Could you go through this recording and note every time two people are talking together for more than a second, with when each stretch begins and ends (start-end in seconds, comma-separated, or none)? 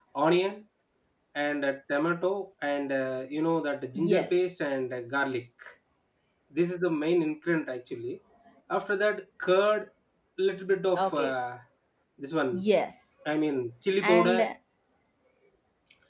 none